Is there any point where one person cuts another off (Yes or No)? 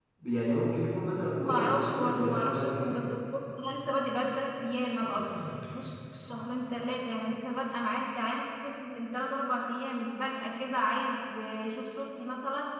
Yes